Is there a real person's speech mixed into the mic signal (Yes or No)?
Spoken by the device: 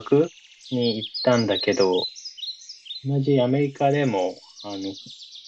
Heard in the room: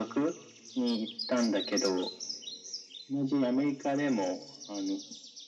No